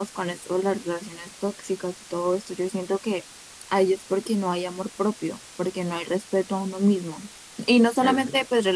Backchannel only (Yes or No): Yes